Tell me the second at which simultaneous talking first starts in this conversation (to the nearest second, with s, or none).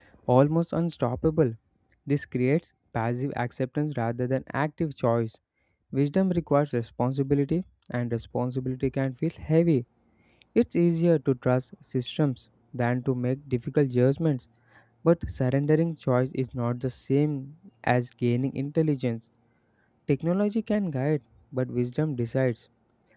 none